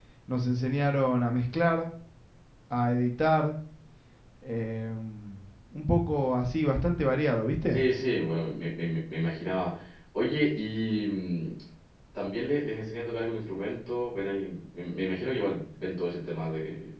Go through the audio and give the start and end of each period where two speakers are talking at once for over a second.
none

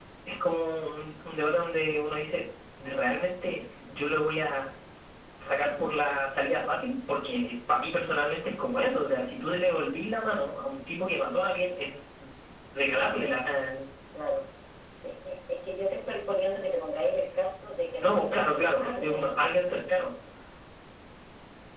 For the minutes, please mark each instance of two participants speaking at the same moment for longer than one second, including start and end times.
18.0-19.6

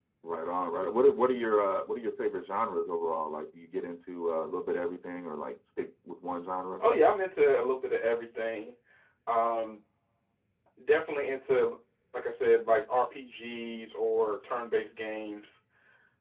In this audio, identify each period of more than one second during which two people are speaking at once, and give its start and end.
none

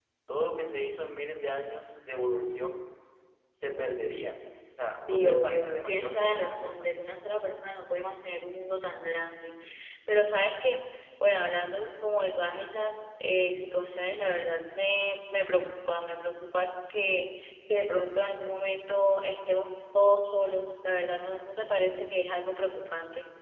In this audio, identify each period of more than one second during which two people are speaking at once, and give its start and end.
5.1-6.9

